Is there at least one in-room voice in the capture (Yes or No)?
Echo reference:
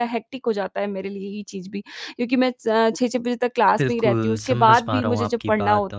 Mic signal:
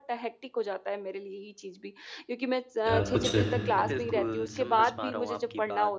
Yes